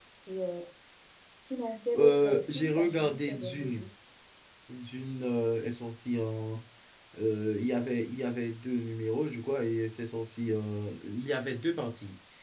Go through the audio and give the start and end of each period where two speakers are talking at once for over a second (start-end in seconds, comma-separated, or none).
1.9-3.8